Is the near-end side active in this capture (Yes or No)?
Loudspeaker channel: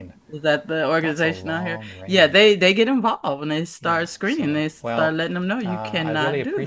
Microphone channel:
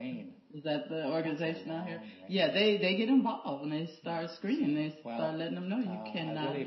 No